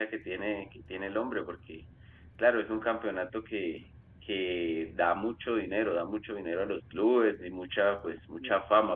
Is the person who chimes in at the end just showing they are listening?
Yes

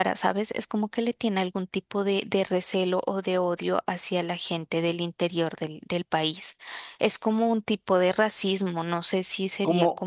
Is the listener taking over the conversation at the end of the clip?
Yes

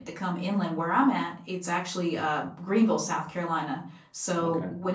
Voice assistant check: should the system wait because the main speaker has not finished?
Yes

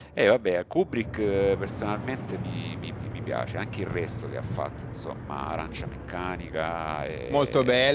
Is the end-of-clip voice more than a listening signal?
Yes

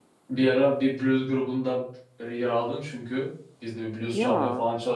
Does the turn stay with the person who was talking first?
Yes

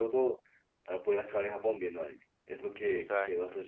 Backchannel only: Yes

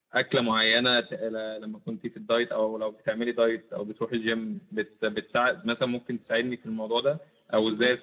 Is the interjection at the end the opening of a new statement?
No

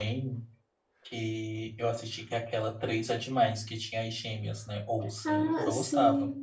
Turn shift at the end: Yes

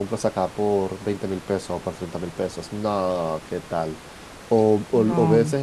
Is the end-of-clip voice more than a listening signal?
No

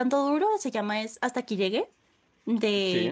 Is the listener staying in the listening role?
Yes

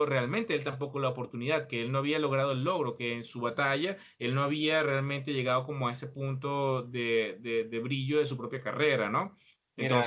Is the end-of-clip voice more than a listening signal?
Yes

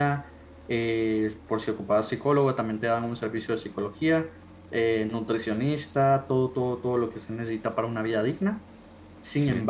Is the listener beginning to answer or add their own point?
No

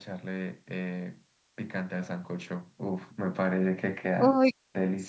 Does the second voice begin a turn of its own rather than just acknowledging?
Yes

